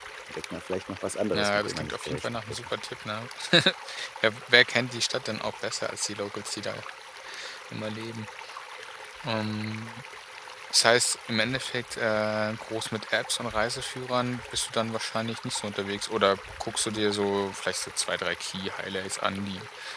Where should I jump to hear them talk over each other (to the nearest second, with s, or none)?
1 s